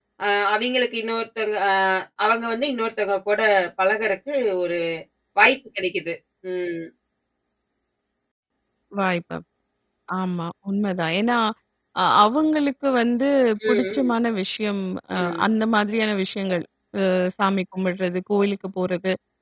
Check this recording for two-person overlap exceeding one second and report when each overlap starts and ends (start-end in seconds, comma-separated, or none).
none